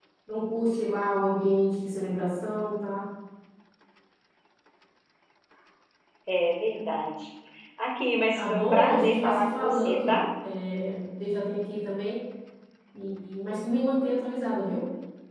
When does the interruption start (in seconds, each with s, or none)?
8.3 s